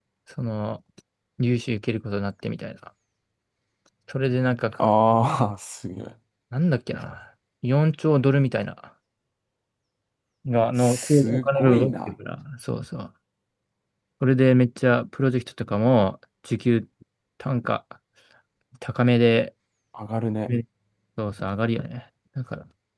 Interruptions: present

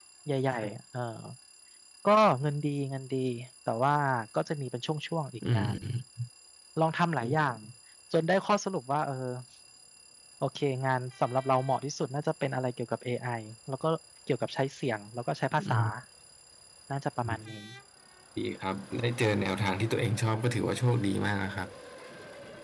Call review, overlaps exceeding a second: none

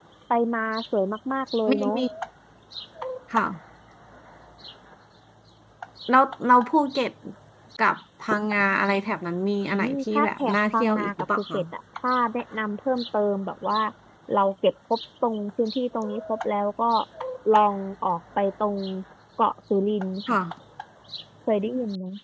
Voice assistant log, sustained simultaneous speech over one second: present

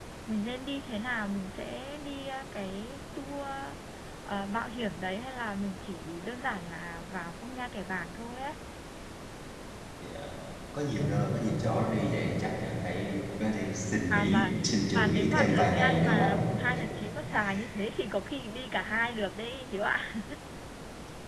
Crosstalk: present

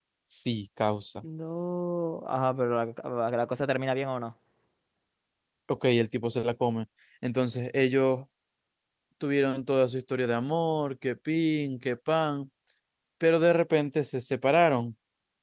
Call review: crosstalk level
none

